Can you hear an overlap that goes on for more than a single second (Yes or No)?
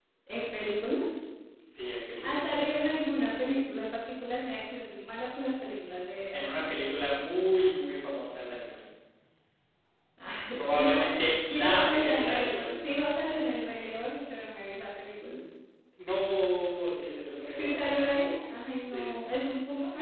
Yes